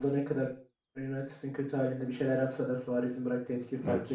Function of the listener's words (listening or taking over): taking over